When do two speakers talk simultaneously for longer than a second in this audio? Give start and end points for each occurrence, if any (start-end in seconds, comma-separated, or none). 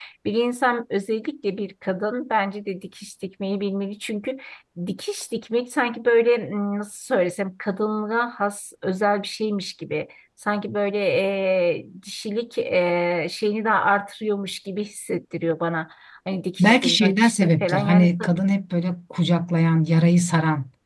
16.6-18.3